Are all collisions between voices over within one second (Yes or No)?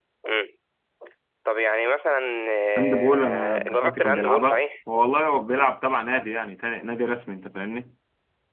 No